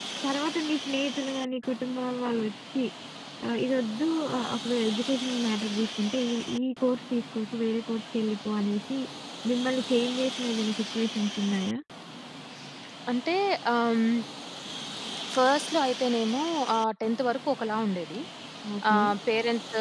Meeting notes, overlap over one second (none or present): none